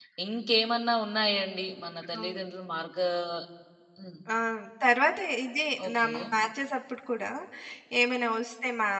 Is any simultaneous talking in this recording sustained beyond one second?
No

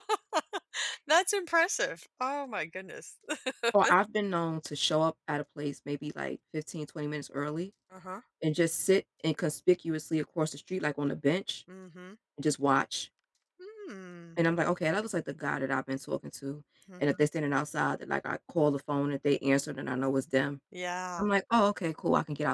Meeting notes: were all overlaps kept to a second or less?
Yes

